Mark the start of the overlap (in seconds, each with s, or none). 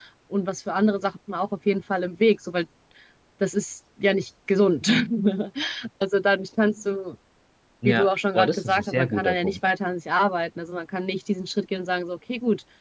7.8 s